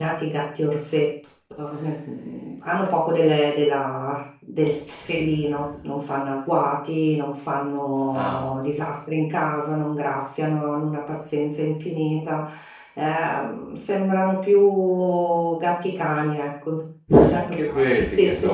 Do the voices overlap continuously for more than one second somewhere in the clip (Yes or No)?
Yes